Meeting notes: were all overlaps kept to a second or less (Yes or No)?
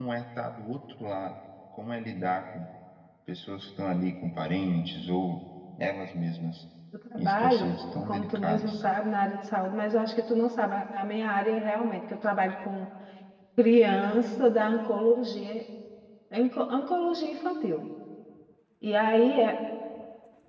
No